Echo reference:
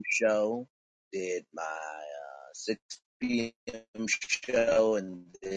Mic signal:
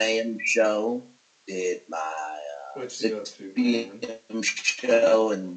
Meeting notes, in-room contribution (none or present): present